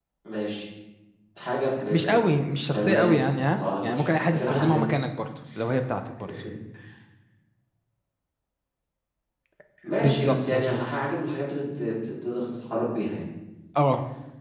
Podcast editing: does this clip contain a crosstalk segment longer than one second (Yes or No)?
Yes